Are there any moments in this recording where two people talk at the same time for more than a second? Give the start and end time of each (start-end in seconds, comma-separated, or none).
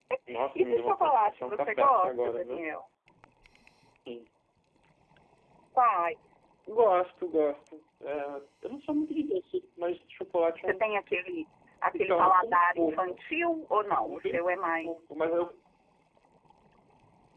0.6-2.6, 11.9-13.2